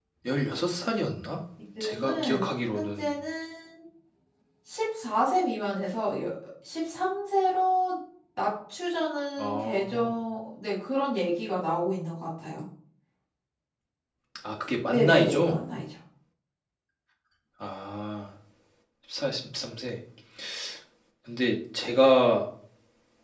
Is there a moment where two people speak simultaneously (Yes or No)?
Yes